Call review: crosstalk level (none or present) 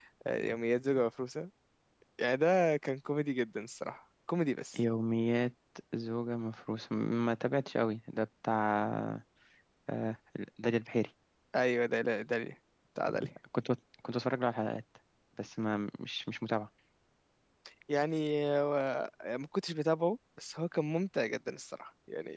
none